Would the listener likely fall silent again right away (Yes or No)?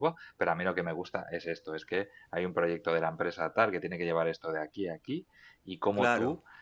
Yes